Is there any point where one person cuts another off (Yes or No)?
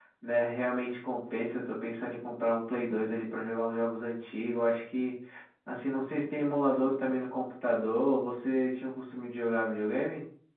No